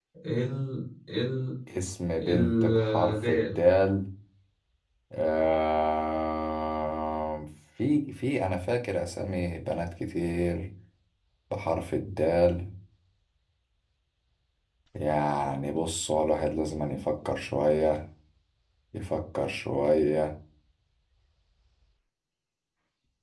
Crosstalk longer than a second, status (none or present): present